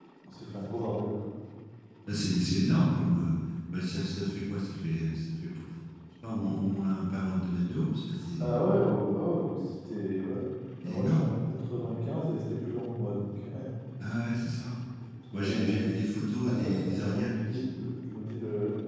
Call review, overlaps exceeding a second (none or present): present